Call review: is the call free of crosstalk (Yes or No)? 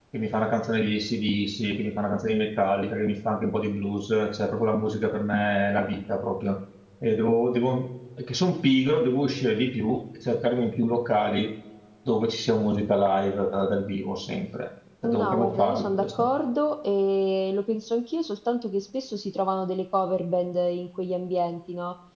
No